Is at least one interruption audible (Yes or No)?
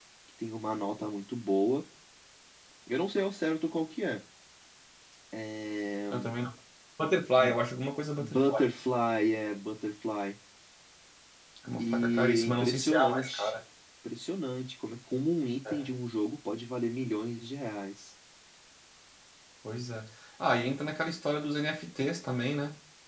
Yes